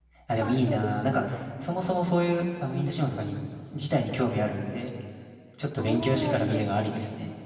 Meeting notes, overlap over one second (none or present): present